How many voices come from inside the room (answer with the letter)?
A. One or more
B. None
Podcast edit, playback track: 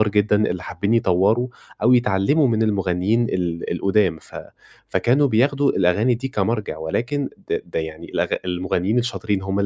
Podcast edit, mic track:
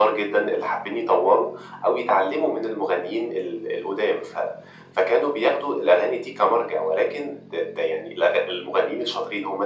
B